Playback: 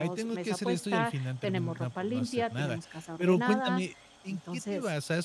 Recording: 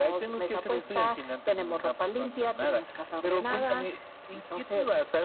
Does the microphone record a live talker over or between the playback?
No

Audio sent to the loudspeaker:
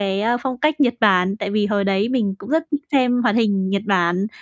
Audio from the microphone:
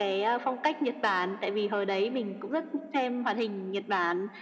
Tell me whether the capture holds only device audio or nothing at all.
Yes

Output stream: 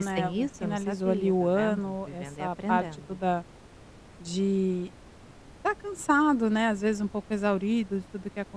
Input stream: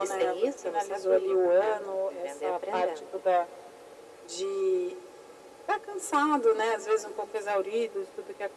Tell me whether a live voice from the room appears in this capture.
No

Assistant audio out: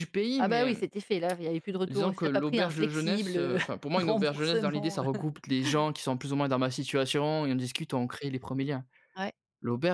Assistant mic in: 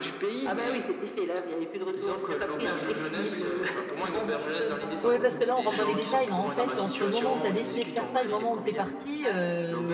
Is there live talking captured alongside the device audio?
Yes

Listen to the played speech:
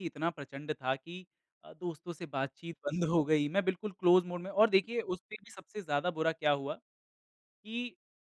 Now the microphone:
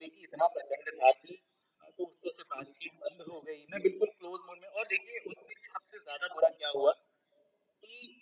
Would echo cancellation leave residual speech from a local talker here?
No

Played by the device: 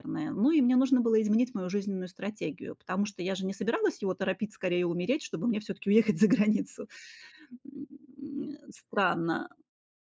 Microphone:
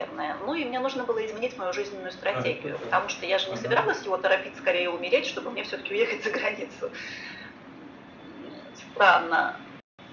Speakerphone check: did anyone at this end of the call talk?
Yes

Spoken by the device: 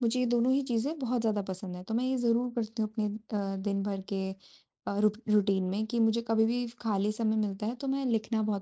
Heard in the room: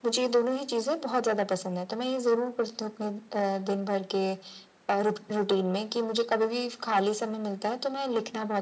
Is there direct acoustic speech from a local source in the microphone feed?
No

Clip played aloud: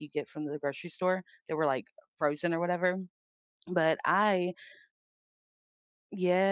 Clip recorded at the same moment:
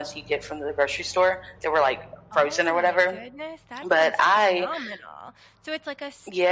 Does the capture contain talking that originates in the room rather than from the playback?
Yes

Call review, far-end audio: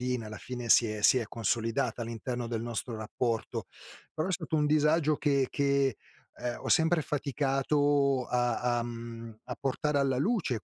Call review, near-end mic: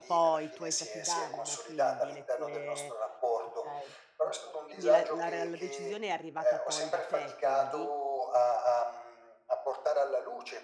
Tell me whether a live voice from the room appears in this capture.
Yes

